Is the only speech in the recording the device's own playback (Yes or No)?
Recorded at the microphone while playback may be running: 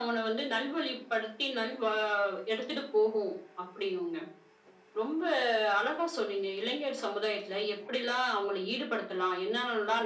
Yes